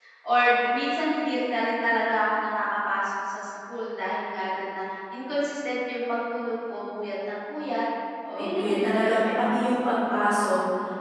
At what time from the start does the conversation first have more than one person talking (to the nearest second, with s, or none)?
8 s